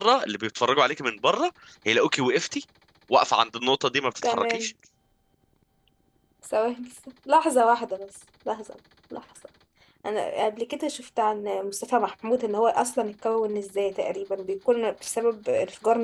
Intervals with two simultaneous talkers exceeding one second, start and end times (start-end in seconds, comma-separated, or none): none